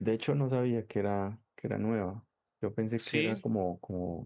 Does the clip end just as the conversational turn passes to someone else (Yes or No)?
No